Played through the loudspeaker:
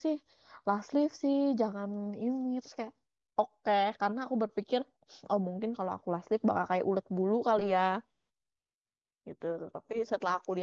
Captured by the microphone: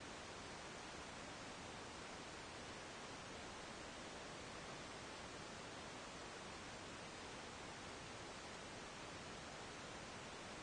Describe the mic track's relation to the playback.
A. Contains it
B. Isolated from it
B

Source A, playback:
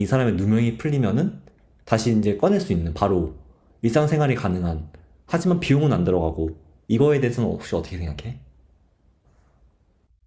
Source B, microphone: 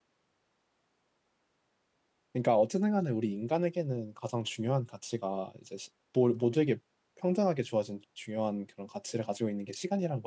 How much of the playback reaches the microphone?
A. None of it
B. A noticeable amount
A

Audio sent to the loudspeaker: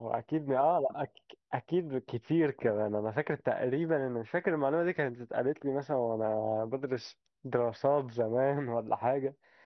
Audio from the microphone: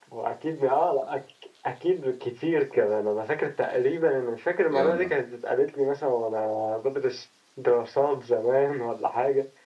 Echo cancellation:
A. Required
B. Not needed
A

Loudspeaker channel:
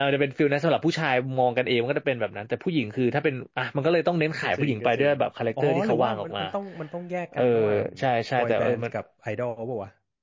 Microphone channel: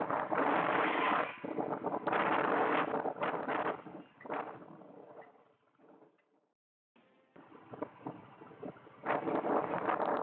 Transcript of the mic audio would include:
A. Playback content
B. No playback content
B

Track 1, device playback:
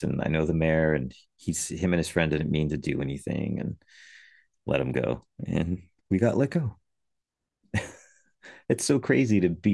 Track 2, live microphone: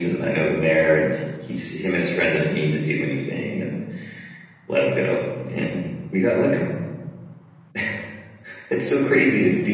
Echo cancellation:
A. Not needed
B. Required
B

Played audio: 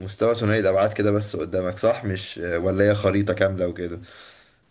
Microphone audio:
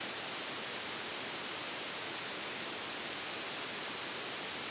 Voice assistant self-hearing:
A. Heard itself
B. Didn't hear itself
B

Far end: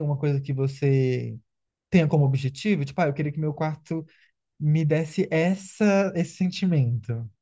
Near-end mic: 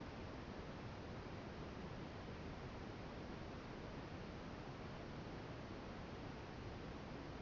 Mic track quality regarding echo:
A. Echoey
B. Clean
B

